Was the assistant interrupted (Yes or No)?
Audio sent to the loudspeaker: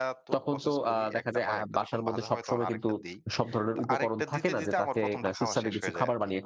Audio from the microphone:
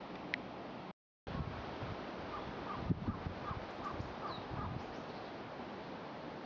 No